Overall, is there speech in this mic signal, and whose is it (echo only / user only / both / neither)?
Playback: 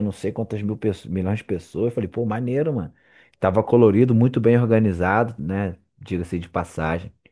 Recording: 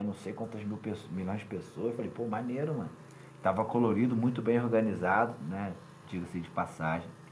echo only